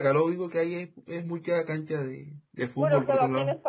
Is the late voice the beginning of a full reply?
Yes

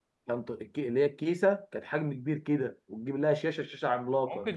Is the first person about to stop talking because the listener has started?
Yes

